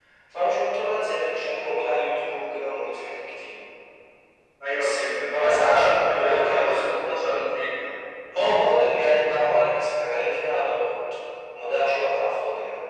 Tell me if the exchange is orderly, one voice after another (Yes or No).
No